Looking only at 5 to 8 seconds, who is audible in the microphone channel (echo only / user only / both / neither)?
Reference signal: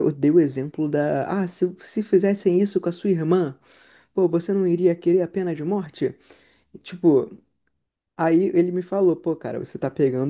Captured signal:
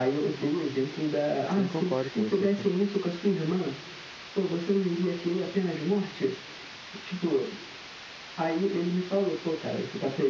echo only